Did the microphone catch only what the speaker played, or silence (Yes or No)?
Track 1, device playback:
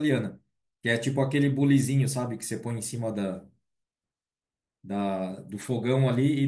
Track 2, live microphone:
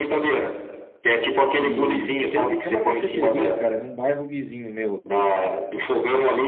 No